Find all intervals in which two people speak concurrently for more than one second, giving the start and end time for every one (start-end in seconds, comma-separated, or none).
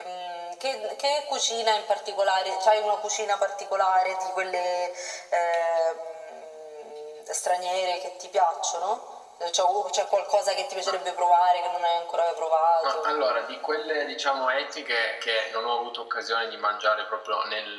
none